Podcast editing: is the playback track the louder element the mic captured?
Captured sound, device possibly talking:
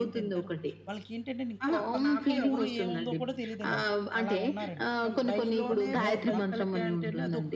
Yes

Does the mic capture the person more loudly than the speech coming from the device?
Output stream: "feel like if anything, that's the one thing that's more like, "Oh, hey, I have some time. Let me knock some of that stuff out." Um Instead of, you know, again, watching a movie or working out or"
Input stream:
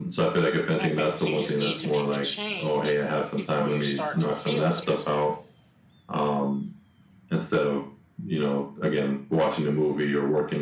No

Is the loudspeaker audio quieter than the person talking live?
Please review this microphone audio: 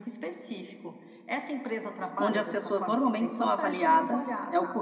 Yes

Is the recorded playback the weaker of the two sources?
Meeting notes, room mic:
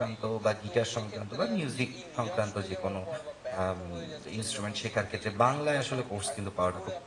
Yes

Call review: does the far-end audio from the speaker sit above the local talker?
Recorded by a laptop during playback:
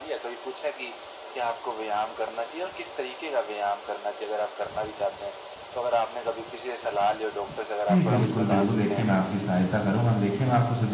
No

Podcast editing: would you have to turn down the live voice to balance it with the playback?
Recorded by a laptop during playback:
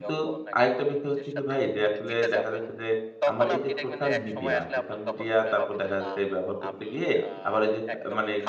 Yes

